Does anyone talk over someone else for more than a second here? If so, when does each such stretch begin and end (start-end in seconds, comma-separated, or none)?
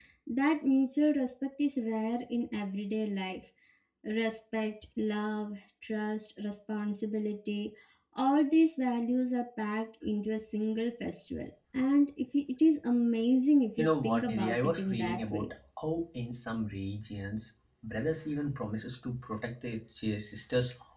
13.8-15.5